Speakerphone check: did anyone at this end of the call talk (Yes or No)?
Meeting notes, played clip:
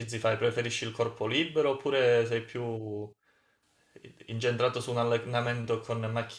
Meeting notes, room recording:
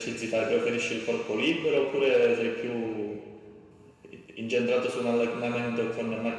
No